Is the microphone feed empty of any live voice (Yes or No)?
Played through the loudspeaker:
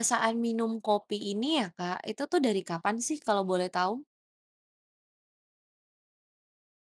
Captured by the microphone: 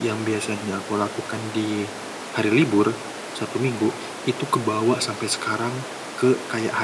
No